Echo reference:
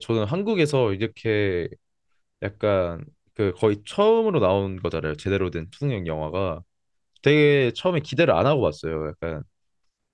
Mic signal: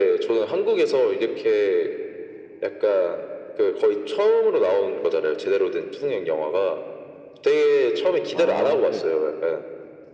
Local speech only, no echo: 아 네.

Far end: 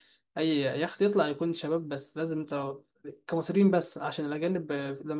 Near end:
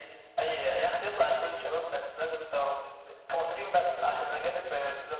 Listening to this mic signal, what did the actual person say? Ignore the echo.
none

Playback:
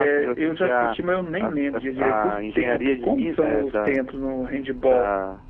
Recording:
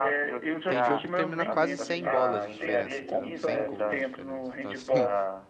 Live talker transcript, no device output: tem jogo que termina quase 100 bolas de diferença, entendeu? 100 gols de diferença. Então, assim,

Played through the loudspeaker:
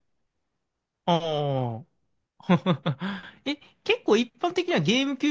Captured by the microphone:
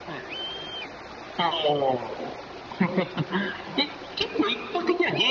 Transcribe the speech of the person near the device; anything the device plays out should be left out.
none

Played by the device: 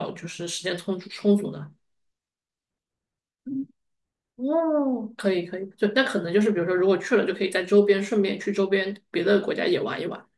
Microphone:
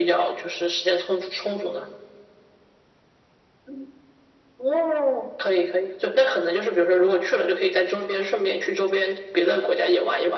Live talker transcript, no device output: none

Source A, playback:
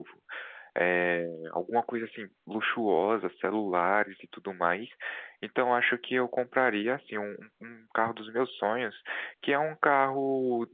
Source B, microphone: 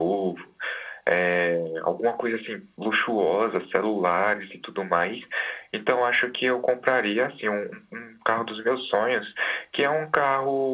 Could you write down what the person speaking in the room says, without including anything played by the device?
none

